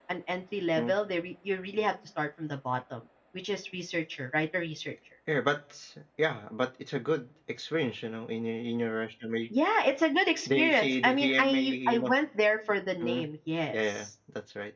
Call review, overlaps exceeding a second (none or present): present